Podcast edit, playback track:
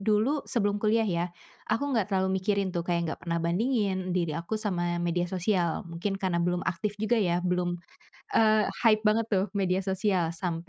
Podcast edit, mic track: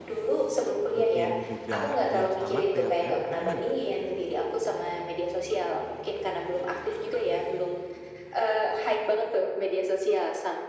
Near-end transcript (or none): mungkin juga biar sama kayak tren apa gimana Kak?